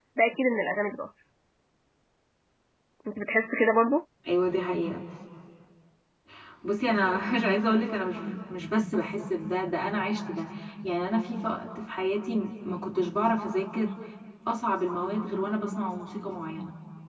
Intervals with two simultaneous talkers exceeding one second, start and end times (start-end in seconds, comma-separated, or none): none